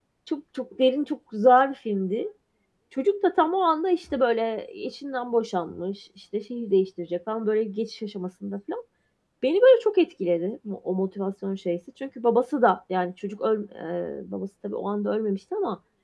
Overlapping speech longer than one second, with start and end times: none

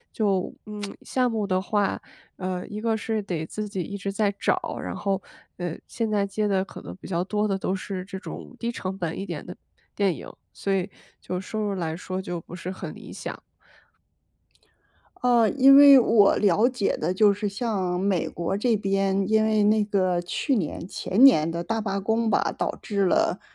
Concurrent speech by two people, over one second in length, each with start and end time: none

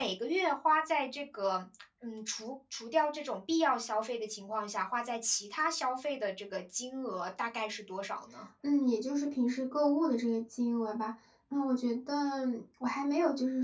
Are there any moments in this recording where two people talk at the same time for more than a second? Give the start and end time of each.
none

